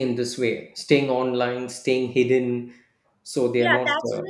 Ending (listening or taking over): taking over